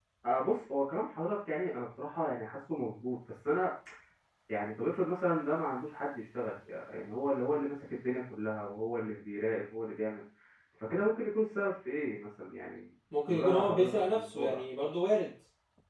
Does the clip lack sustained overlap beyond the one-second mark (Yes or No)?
No